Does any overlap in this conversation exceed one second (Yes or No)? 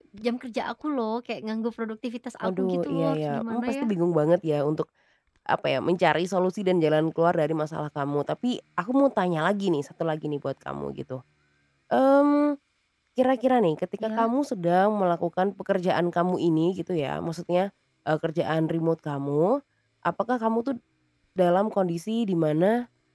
Yes